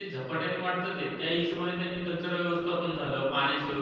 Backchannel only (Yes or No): Yes